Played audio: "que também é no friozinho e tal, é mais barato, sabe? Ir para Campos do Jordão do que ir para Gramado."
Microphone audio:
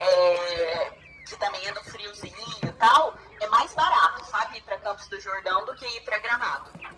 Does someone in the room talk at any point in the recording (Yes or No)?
No